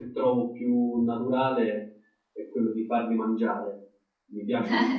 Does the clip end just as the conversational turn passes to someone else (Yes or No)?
Yes